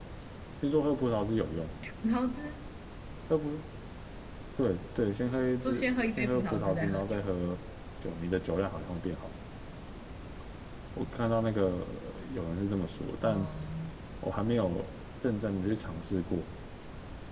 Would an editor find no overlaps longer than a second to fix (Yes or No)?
No